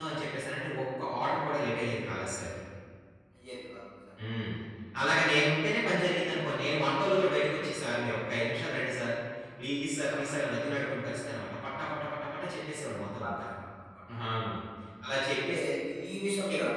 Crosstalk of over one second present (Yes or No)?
No